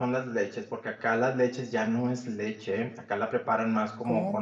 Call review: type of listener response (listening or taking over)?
listening